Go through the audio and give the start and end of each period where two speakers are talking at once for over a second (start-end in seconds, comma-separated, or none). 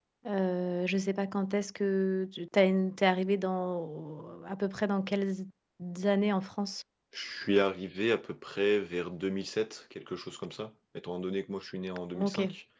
none